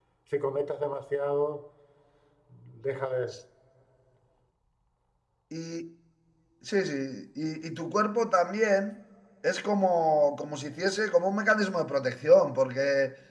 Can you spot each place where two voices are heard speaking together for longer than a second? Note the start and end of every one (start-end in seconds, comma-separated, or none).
none